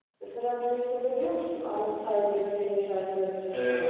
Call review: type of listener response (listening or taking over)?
taking over